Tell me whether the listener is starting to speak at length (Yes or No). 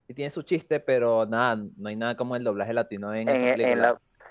Yes